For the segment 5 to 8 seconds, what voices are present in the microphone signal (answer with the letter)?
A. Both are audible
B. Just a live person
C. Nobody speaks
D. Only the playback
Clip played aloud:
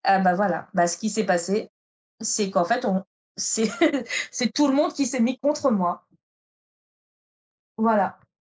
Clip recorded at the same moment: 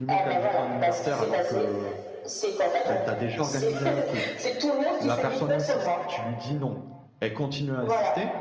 A